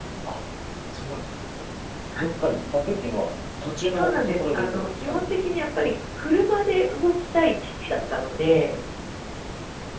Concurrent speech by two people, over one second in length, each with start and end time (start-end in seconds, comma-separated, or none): 3.9-5.2